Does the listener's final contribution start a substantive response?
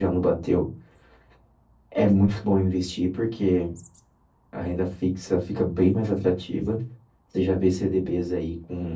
No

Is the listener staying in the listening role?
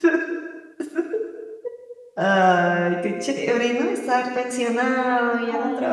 Yes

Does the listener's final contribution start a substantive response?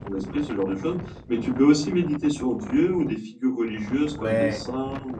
Yes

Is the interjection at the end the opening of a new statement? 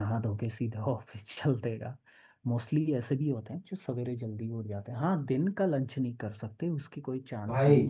Yes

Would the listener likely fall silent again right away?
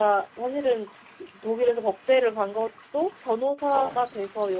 Yes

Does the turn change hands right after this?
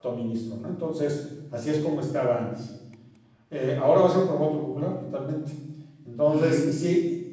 No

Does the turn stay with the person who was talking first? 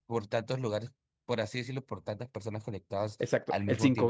No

